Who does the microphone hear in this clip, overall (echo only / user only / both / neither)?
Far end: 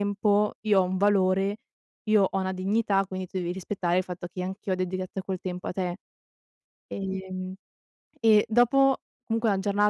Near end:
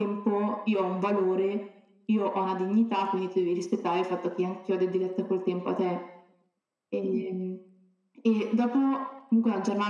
echo only